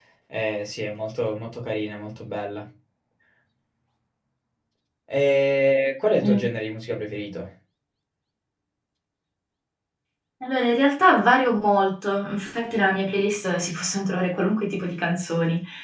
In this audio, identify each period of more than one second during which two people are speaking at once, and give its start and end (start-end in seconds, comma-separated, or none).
none